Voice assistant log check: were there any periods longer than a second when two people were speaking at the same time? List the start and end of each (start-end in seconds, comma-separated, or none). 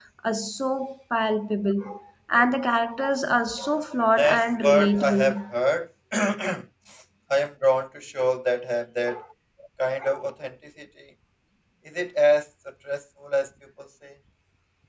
4.2-5.5